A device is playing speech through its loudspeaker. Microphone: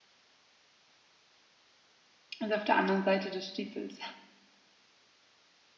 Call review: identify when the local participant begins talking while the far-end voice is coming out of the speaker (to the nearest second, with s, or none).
2 s